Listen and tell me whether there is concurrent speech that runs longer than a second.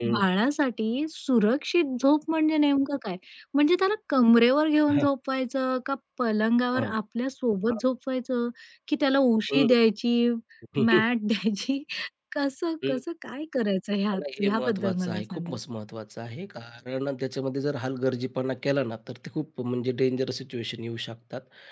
Yes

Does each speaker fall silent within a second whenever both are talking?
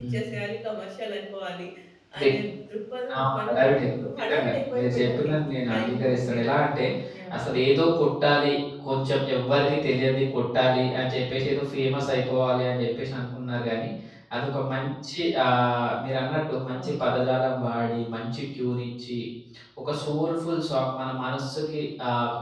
No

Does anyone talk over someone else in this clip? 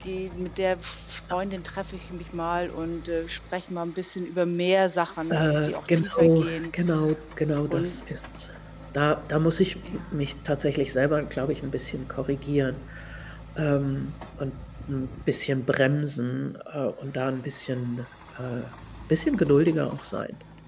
Yes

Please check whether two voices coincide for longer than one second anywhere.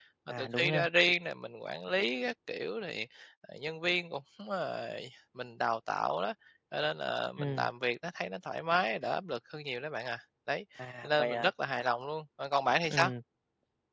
No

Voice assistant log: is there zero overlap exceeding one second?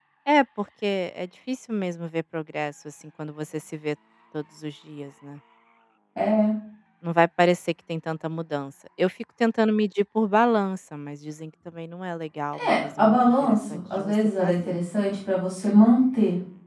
No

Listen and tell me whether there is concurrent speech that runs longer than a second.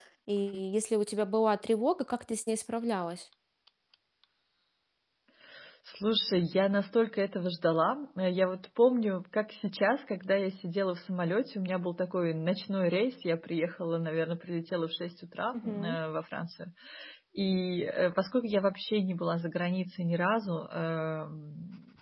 No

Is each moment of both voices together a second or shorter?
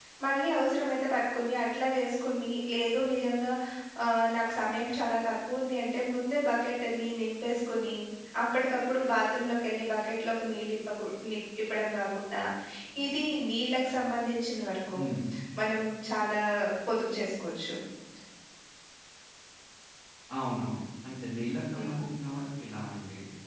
Yes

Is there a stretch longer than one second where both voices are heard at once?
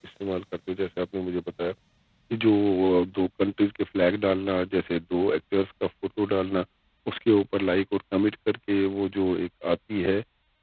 No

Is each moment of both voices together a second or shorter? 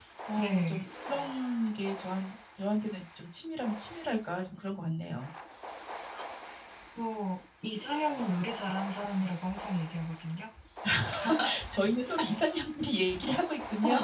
Yes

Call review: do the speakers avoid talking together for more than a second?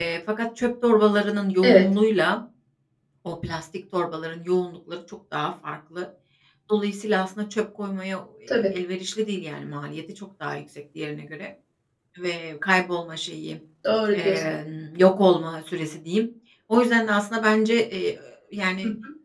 Yes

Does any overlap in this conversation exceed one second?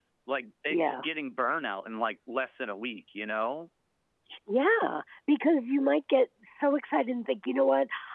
No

